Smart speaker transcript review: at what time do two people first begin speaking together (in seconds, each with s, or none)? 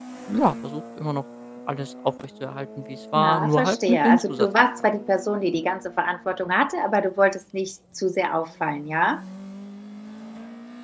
3.1 s